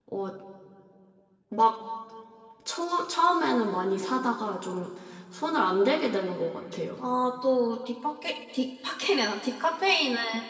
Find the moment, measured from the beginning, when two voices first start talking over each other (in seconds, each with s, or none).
none